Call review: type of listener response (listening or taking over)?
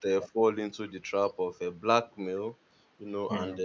listening